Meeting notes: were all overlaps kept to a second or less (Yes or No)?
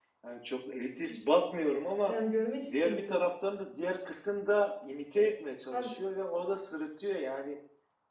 Yes